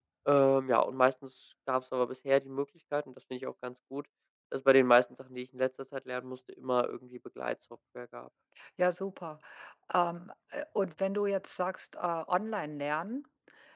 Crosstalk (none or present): none